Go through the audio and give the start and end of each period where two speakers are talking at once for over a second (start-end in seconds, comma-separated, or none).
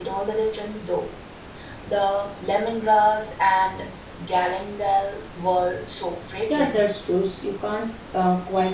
none